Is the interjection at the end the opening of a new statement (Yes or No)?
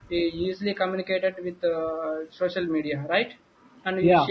No